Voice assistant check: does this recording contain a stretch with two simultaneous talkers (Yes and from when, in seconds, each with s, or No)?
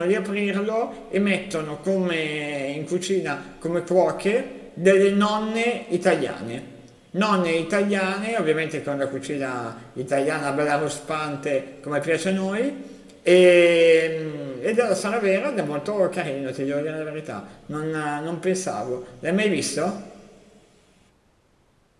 No